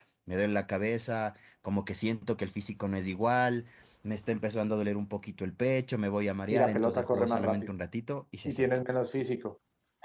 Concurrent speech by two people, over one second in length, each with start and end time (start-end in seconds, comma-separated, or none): 6.5-7.7